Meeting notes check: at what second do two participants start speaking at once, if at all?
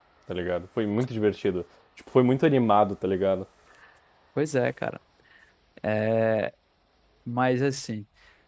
none

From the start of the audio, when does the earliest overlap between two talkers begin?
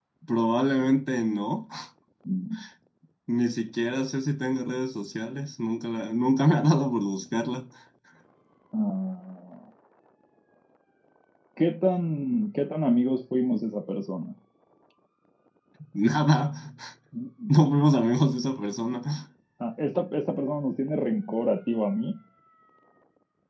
none

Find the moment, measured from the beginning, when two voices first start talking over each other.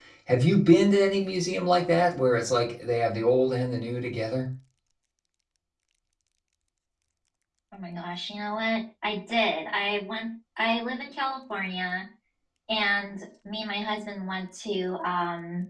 none

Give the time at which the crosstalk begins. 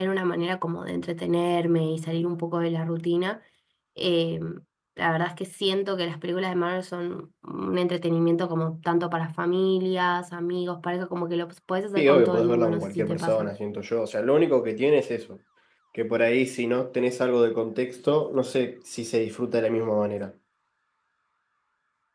12.0 s

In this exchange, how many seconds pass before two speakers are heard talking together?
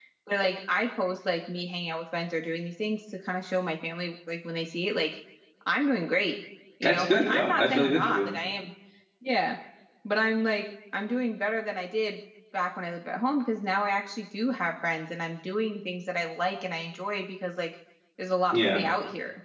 6.8 s

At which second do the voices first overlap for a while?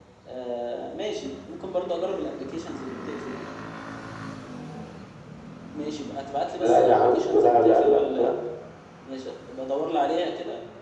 6.6 s

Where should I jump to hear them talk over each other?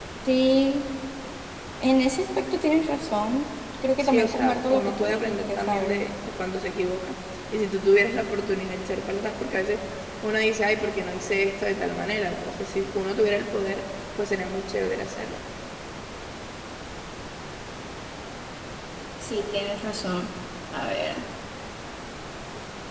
4.0 s

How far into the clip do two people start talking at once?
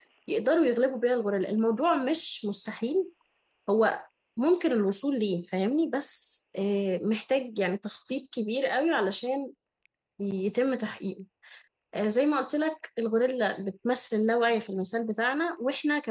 none

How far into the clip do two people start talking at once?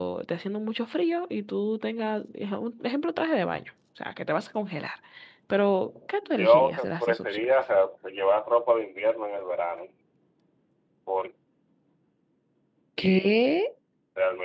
6.2 s

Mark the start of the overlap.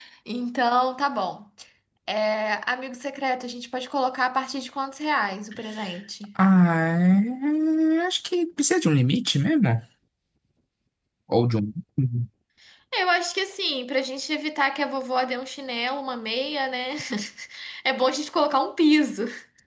none

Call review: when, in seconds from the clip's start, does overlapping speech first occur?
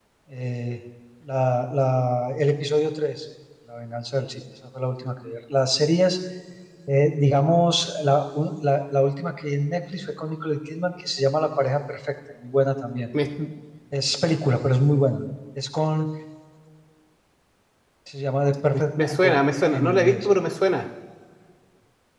18.7 s

